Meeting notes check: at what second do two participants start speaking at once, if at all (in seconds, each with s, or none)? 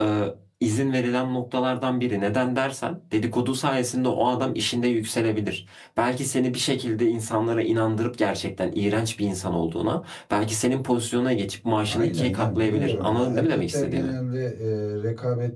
11.9 s